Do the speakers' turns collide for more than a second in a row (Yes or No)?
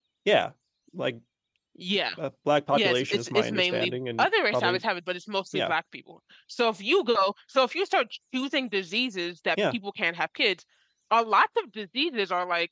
Yes